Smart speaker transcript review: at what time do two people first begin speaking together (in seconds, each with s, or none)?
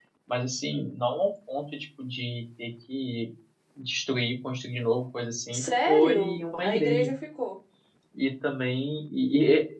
5.5 s